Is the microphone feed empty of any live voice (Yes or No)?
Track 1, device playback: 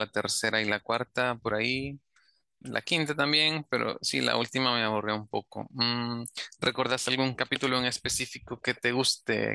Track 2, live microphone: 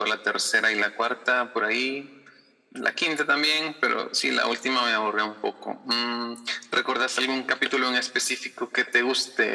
Yes